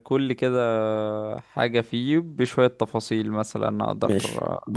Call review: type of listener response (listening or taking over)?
taking over